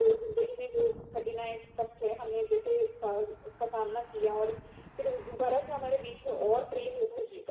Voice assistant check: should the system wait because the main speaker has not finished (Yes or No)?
Yes